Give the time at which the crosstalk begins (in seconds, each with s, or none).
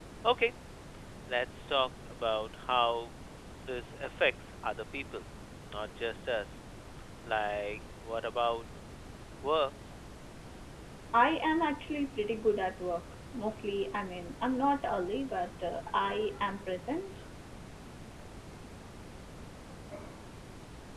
none